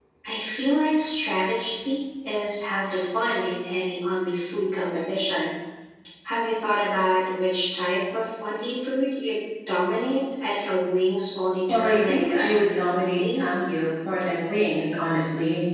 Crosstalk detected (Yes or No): Yes